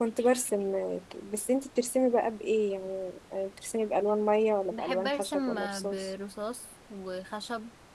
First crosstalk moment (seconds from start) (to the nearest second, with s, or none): 5 s